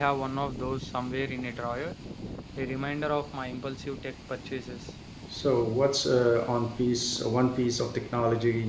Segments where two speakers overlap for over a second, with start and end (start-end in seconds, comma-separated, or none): none